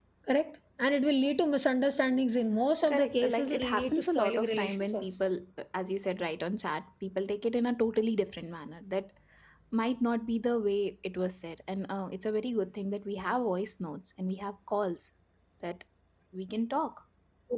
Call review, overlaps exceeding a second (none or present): present